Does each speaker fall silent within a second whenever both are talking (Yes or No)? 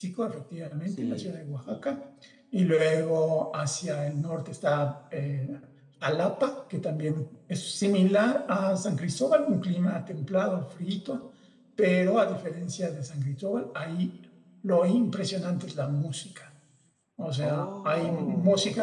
No